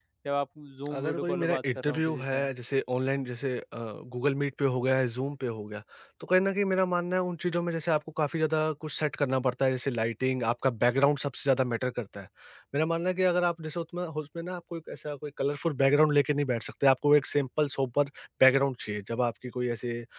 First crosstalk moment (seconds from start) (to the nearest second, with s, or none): 1 s